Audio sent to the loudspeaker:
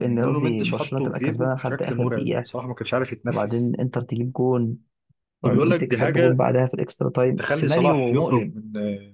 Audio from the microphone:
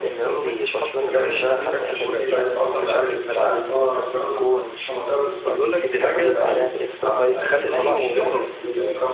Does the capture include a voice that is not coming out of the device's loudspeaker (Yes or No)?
Yes